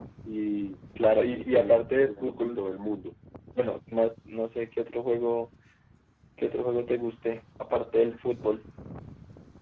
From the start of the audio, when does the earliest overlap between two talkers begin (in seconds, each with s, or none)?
1.3 s